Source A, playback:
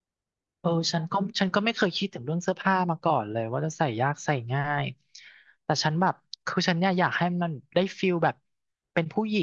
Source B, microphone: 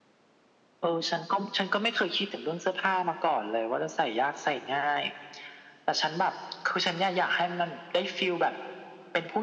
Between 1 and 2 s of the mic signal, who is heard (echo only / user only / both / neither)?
echo only